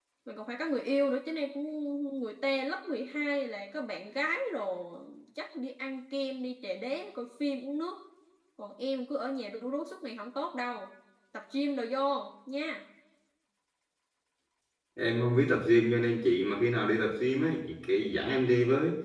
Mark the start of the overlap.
none

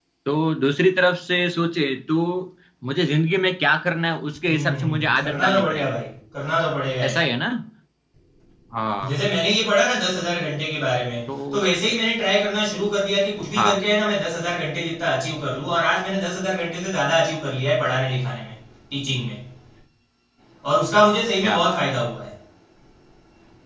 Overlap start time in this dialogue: 5 s

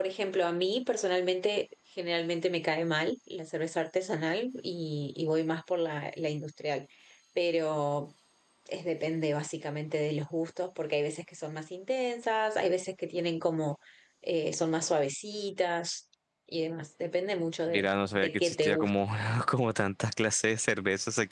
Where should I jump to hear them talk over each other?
18 s

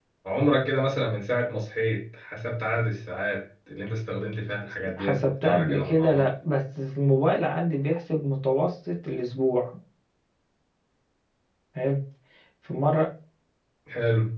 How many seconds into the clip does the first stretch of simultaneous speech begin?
5 s

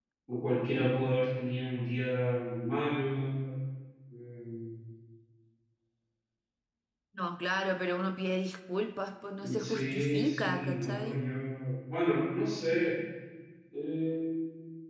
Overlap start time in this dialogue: 9 s

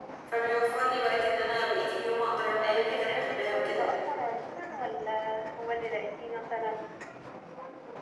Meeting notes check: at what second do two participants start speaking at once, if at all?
3 s

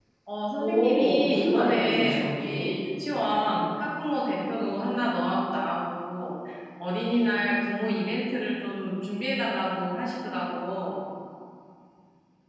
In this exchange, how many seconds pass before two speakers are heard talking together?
1 s

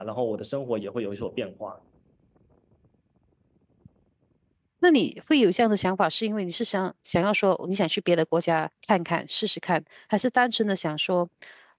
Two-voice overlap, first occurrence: none

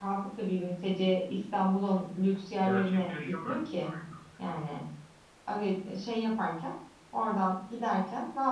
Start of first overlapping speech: 3 s

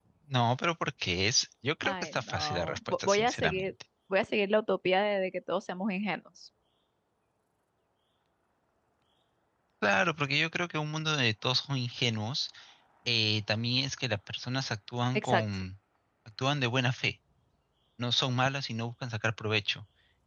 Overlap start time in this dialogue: 2 s

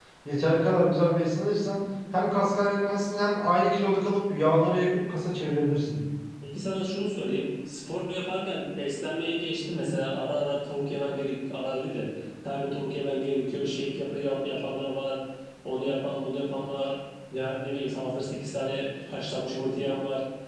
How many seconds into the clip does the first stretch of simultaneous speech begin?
none

